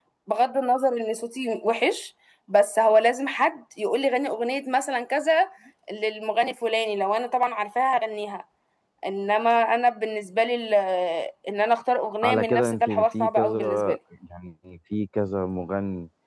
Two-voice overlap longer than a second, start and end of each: 12.2-14.0

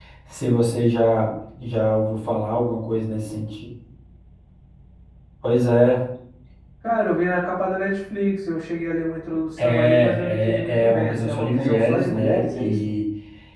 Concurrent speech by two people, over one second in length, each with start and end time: 9.6-12.9

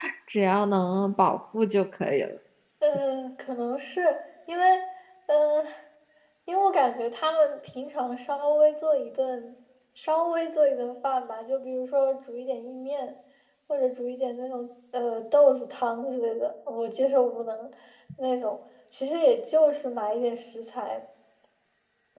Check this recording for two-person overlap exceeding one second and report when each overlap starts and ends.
none

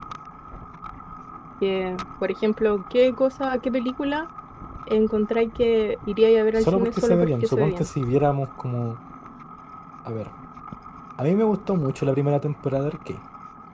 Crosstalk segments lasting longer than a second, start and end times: 6.6-7.9

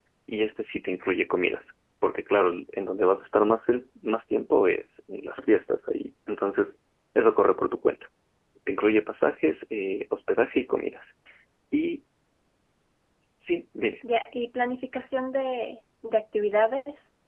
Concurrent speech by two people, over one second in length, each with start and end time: none

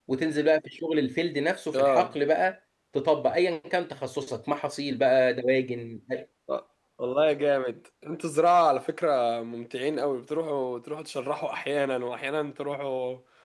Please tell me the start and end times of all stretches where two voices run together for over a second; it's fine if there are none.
none

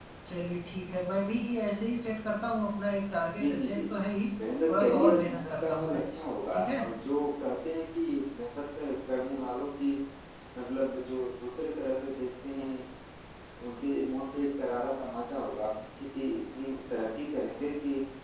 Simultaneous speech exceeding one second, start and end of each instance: 4.7-6.0

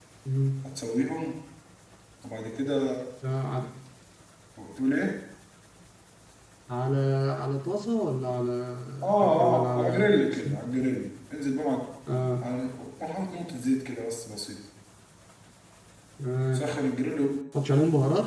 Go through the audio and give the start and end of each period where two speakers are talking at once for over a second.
9.2-10.6

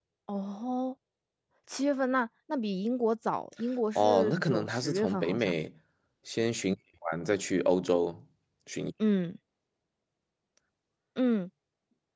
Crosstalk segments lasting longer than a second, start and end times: 4.0-5.5

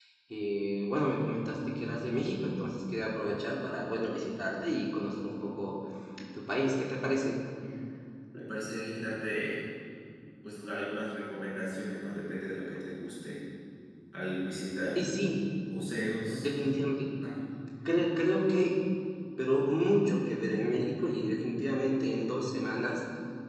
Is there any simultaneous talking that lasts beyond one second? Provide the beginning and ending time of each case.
none

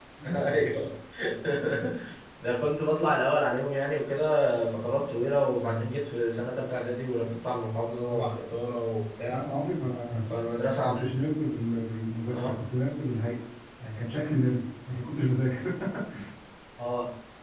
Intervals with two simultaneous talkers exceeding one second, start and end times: none

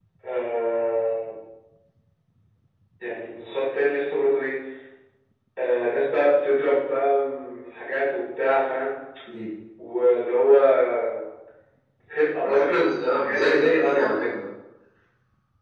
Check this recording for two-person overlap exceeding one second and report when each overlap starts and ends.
12.4-14.0

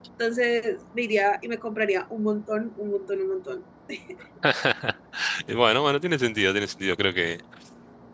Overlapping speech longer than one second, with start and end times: none

